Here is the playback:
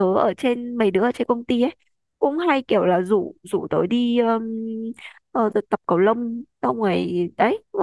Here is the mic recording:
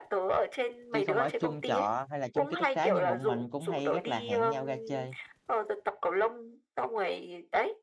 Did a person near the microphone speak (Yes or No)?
Yes